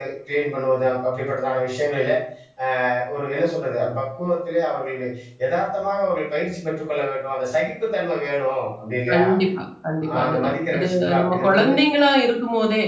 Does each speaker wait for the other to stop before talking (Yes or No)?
No